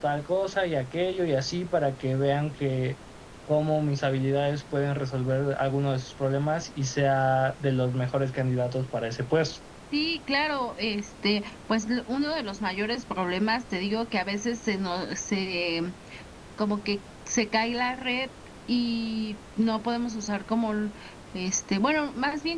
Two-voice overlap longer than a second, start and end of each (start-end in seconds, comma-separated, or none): none